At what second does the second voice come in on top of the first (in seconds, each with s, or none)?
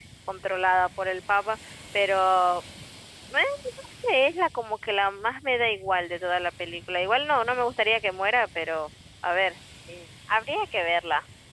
none